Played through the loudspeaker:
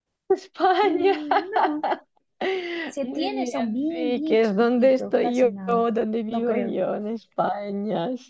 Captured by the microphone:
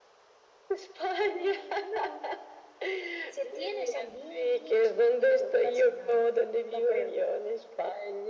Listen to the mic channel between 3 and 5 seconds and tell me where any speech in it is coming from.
echo only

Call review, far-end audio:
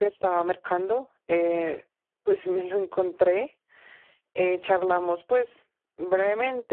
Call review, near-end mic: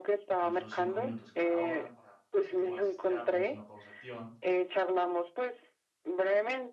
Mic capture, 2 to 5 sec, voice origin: both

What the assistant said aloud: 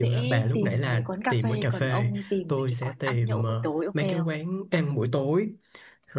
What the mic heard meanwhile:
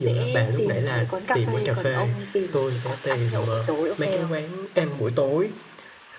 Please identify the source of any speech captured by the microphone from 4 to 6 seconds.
echo only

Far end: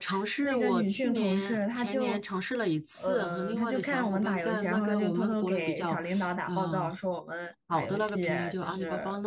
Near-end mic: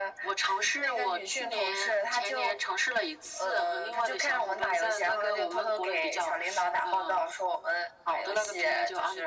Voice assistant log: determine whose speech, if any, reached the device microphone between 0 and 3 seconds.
echo only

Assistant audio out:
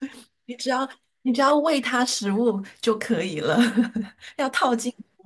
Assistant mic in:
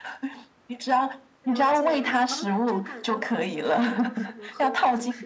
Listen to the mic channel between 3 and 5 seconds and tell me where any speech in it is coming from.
both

